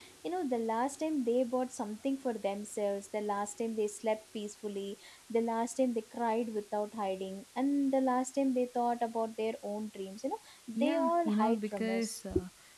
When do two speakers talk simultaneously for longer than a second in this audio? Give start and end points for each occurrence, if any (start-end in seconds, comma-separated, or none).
10.8-12.2